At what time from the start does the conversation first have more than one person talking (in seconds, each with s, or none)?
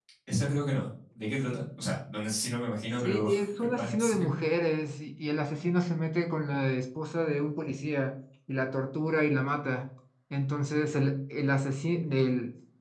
3.0 s